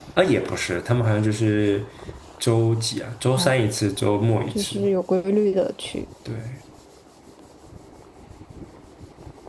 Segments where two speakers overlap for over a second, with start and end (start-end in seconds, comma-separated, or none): none